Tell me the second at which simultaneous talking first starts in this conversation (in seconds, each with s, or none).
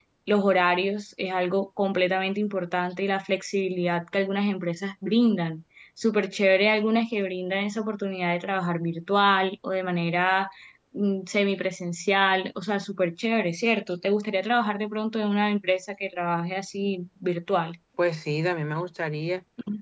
none